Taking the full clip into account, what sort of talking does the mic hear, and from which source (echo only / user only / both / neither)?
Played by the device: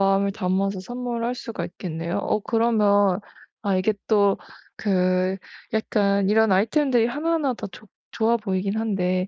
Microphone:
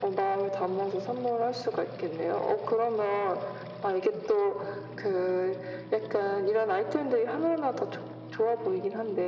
echo only